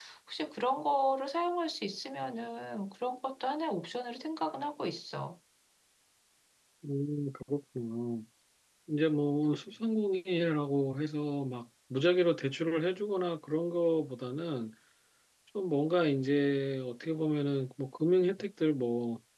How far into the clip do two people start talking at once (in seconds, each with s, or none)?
none